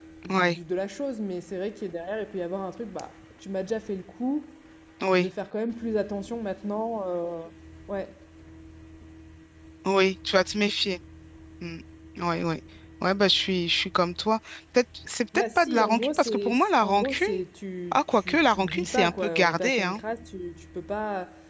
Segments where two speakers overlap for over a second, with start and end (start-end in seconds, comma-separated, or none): 15.6-17.3, 17.9-20.0